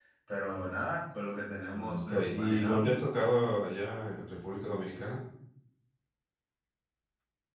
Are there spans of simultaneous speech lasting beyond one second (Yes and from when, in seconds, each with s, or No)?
Yes, from 1.7 s